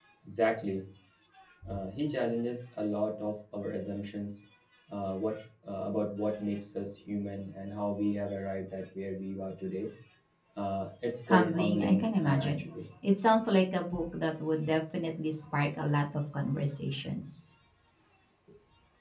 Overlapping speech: Yes, from 11.3 s

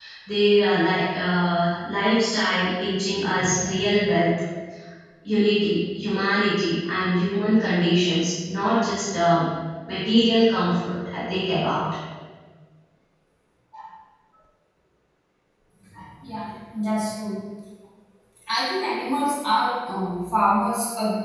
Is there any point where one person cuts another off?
No

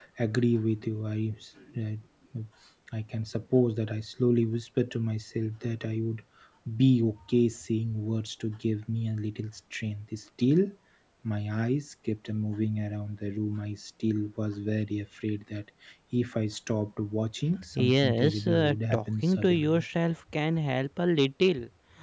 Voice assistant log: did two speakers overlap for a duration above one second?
Yes, from 17.8 s

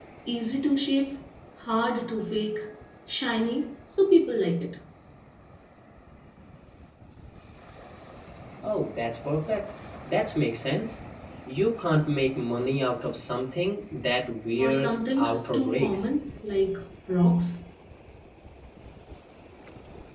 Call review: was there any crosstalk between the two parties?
Yes, from 14.6 s

